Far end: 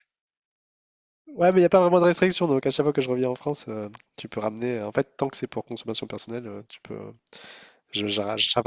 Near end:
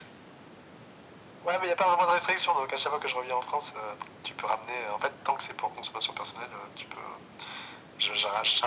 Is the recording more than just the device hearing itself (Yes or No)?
No